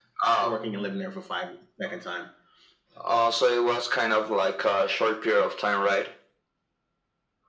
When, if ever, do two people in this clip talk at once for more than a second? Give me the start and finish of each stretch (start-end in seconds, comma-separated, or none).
none